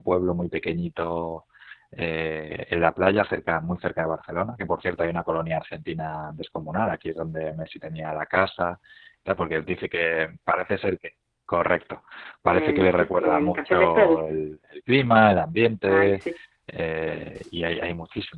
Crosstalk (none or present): present